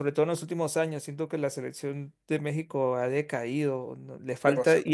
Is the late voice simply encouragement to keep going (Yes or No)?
Yes